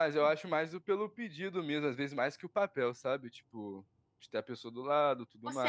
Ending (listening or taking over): taking over